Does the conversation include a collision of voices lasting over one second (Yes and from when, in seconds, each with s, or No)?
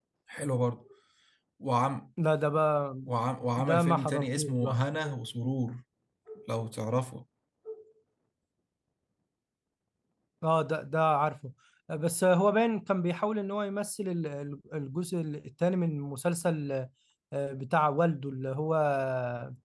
Yes, from 3.6 s